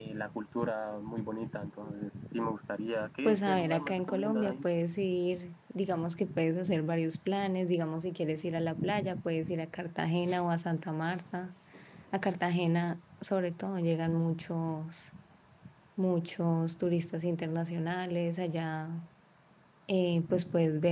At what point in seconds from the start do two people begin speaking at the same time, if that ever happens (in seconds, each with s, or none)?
3.2 s